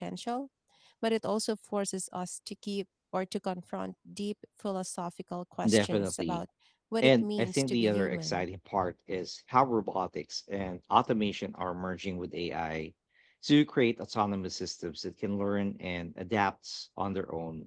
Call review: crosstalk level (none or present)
present